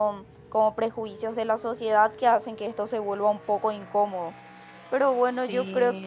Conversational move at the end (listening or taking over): listening